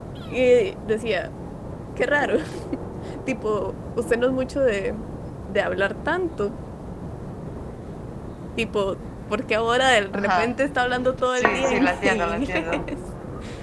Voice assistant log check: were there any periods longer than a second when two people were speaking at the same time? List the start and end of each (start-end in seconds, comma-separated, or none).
11.4-12.8